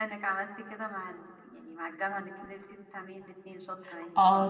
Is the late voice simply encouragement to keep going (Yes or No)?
No